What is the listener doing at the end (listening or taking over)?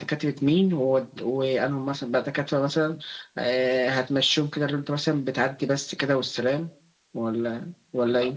taking over